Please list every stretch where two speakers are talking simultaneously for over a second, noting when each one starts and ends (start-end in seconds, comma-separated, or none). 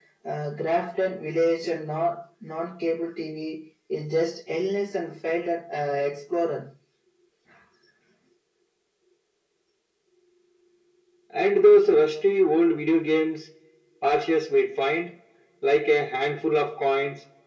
none